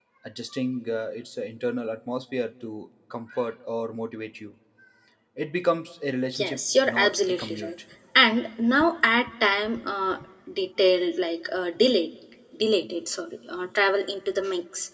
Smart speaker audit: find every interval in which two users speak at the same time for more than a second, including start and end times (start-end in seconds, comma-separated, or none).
6.4-7.7